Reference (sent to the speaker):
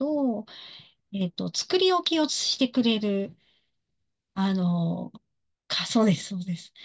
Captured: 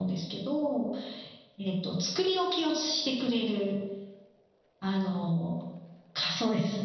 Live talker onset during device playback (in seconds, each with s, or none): none